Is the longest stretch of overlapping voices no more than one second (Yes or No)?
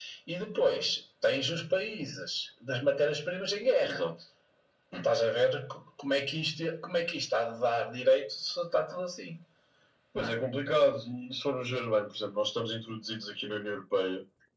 Yes